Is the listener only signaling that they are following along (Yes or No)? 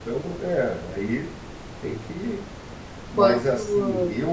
Yes